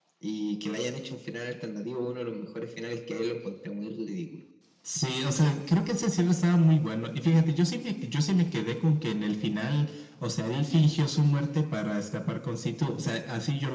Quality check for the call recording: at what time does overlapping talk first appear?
none

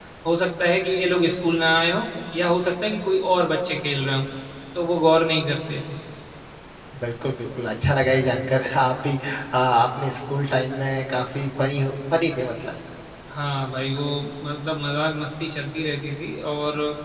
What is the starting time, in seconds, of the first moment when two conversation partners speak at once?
none

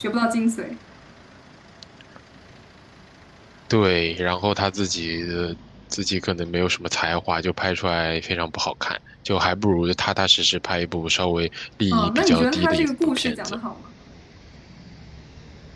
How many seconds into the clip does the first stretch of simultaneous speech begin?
11.9 s

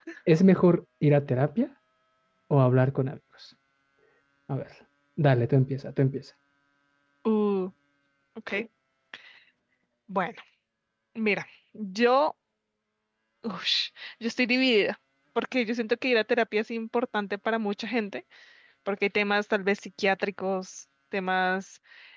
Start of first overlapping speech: none

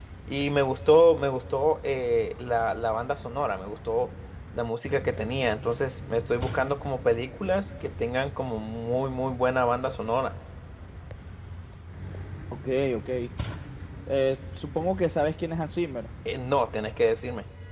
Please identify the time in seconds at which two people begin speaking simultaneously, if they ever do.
none

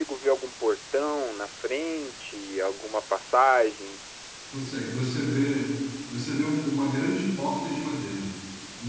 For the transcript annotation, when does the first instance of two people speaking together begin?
none

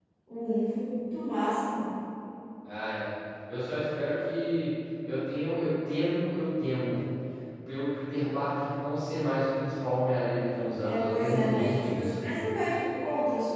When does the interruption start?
10.8 s

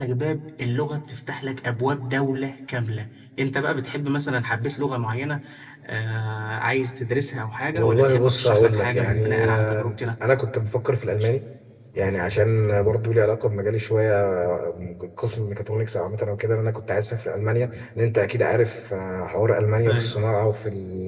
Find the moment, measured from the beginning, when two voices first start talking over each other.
7.7 s

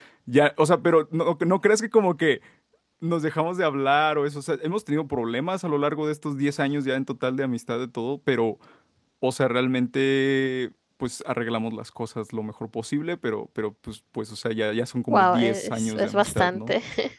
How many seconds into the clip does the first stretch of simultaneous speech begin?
15.1 s

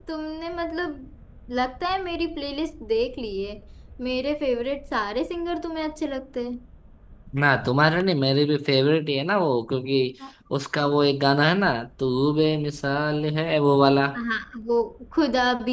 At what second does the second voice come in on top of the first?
none

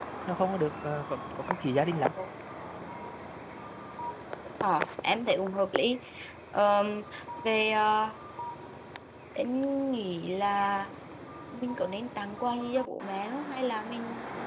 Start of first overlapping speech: none

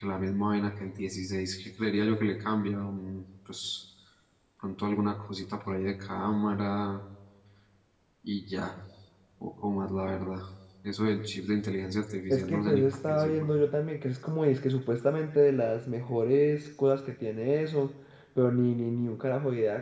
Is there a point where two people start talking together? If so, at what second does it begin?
12.3 s

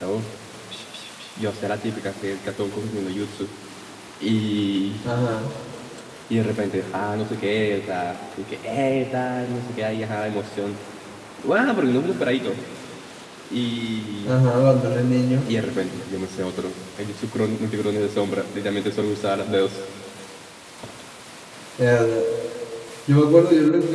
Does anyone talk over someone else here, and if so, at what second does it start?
none

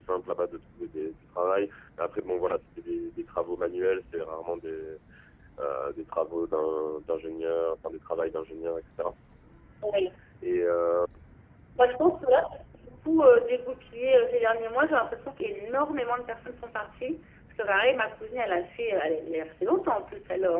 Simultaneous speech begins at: none

